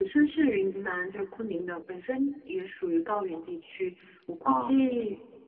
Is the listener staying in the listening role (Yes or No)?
Yes